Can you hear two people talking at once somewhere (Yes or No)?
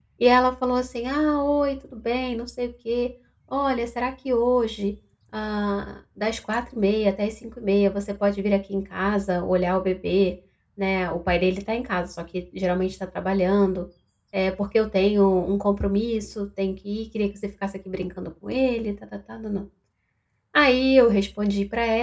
No